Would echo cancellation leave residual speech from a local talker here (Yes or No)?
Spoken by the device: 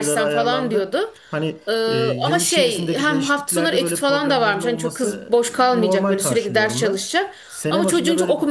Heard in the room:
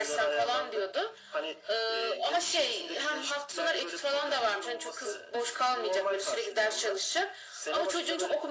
No